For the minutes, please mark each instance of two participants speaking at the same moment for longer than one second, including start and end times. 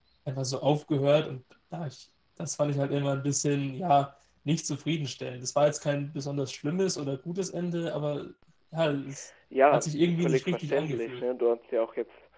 9.7-11.2

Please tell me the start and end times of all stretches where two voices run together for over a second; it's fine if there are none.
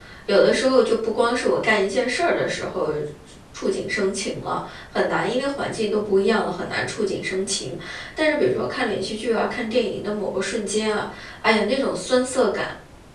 none

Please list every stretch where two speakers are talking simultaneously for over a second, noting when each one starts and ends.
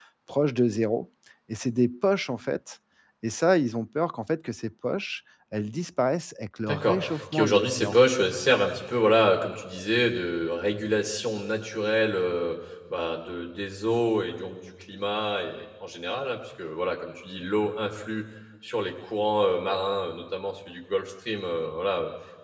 6.7-8.0

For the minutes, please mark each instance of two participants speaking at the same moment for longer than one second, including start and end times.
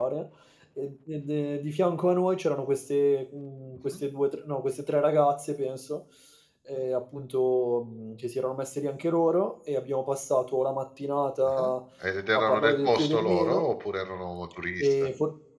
12.3-13.6

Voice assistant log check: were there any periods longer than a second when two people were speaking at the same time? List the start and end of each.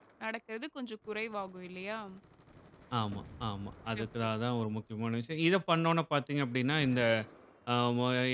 none

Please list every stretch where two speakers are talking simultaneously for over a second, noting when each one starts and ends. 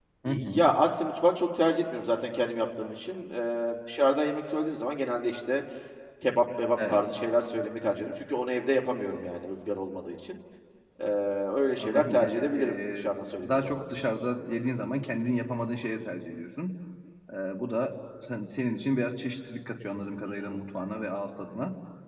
11.8-13.1

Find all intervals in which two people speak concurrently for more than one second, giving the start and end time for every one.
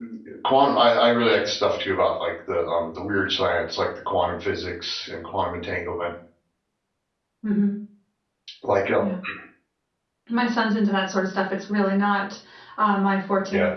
none

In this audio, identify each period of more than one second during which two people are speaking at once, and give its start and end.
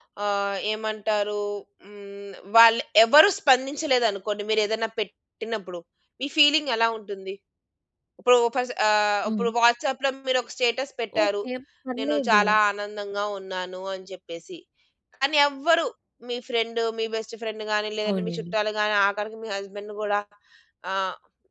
none

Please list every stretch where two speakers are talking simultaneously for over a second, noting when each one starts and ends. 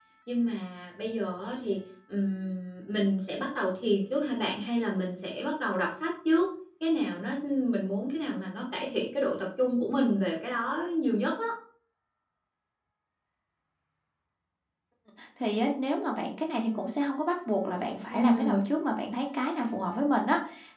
none

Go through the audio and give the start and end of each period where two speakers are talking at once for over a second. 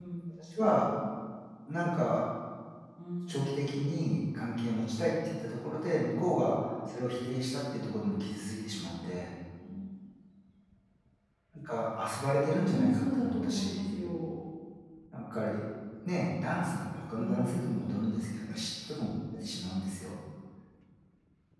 12.4-13.9

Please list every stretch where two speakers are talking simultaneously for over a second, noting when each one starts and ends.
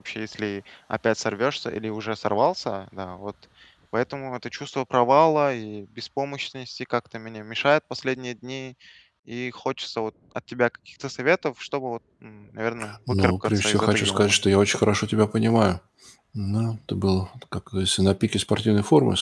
13.1-14.4

